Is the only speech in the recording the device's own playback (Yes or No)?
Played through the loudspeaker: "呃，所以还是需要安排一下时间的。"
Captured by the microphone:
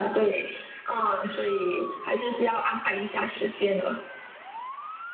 Yes